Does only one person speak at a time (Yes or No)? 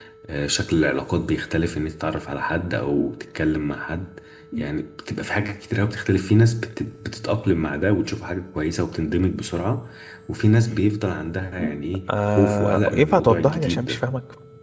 No